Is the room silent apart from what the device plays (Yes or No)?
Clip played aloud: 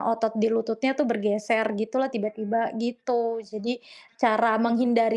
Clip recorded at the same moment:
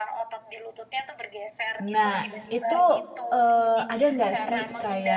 No